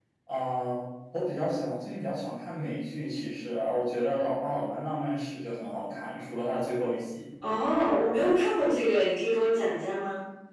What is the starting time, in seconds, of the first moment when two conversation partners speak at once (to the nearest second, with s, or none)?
none